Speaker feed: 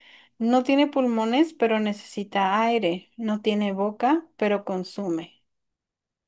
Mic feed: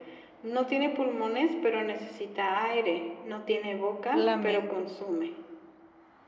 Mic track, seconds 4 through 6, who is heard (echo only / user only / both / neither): both